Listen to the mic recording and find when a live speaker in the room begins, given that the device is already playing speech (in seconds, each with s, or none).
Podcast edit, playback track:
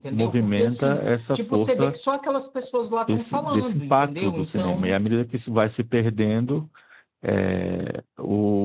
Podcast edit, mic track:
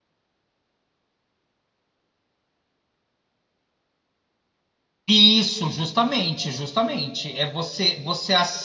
5.1 s